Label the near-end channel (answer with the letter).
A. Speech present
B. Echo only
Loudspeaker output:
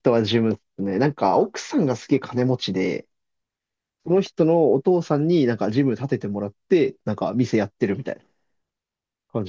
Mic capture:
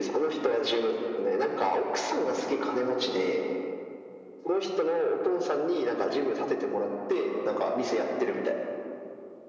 B